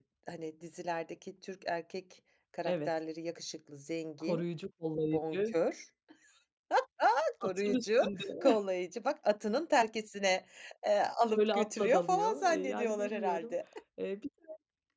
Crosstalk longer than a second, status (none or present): present